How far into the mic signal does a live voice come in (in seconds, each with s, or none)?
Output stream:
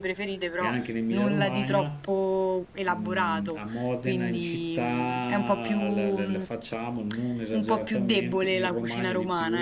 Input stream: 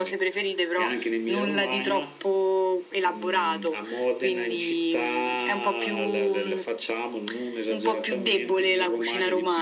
none